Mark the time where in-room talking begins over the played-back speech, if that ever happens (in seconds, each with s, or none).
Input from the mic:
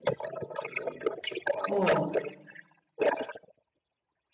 1.7 s